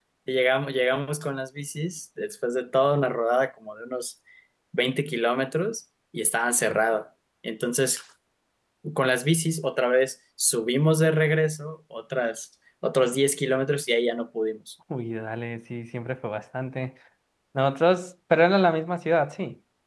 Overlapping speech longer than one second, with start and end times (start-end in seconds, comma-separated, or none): none